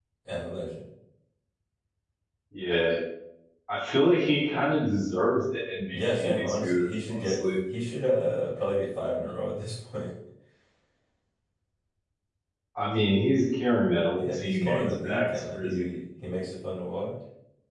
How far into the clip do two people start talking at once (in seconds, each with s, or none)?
5.9 s